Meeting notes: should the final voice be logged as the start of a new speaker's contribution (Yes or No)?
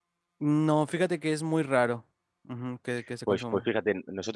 Yes